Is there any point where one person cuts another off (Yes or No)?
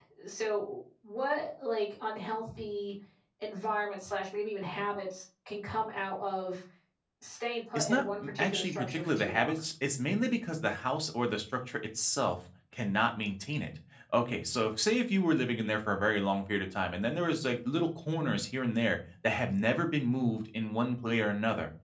Yes